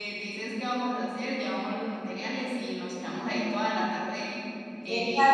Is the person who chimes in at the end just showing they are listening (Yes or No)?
No